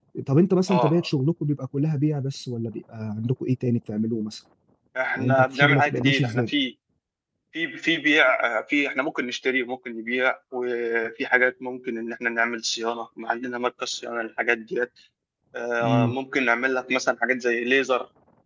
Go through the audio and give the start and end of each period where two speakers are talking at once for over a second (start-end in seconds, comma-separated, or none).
5.2-6.5